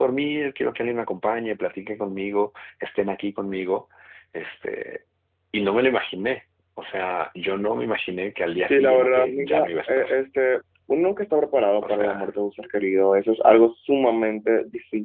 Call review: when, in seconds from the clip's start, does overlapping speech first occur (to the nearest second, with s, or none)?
9 s